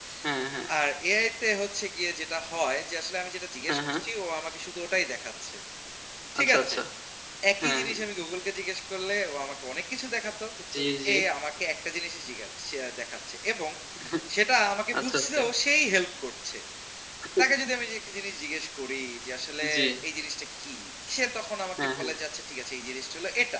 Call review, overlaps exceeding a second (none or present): none